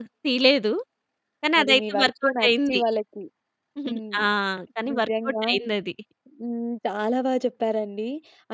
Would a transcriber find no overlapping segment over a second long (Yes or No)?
No